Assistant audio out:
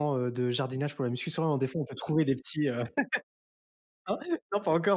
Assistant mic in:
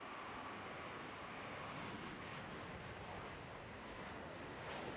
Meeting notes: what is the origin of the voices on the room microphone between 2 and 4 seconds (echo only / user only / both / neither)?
neither